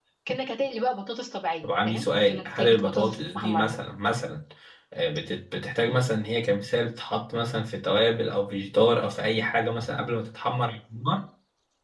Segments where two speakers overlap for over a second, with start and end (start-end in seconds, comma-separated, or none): 1.6-3.7